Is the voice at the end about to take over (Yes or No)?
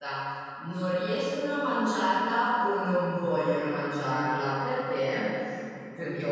No